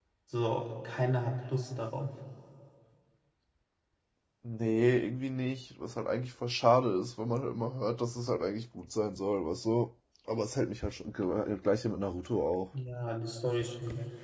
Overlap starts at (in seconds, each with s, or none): none